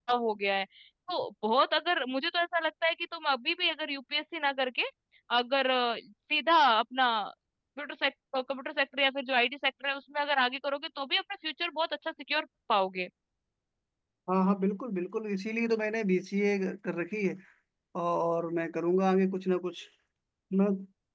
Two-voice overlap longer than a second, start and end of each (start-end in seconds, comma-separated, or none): none